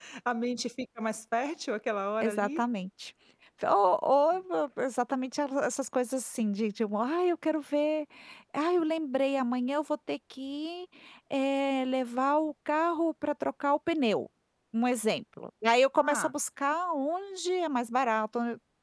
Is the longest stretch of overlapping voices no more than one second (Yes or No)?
Yes